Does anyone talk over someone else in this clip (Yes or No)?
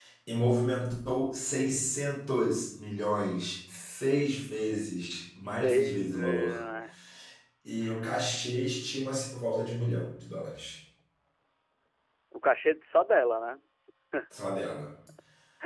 Yes